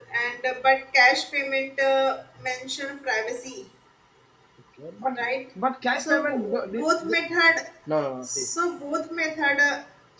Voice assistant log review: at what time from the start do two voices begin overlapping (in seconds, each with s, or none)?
6.0 s